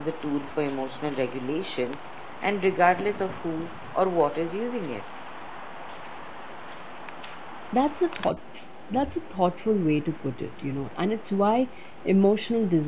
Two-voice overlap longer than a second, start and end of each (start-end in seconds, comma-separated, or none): none